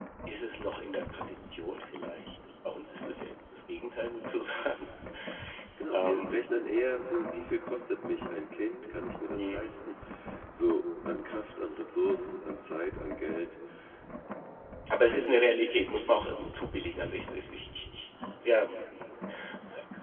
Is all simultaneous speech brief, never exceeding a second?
Yes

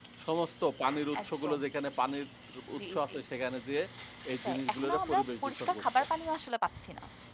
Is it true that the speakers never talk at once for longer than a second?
No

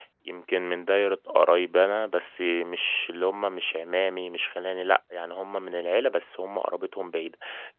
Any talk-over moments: No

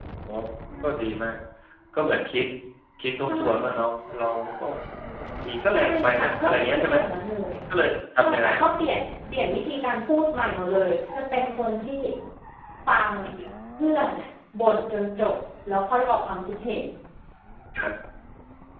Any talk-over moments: Yes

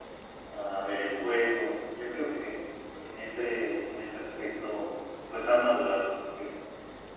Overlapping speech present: No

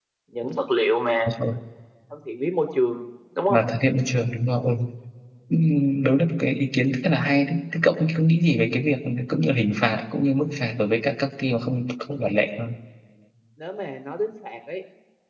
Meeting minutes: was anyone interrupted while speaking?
No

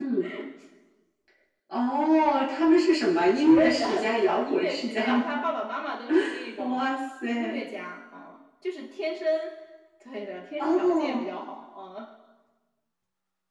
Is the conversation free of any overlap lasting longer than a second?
No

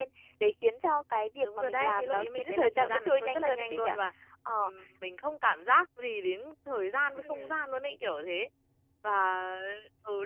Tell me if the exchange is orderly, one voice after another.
No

